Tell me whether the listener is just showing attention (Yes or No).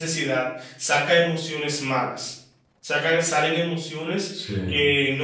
Yes